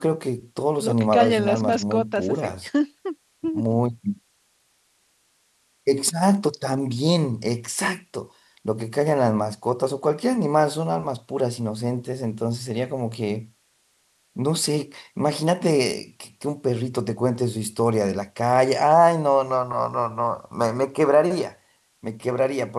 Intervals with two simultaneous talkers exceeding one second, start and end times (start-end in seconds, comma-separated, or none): 0.8-2.5